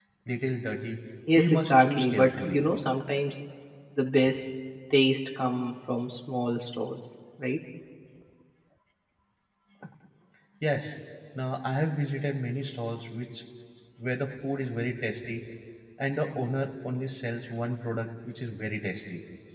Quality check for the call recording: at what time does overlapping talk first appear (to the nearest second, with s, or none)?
1 s